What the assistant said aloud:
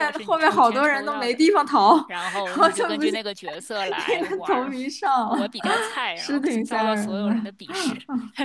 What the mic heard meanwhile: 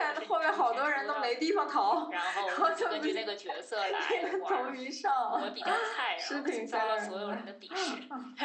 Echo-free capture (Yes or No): No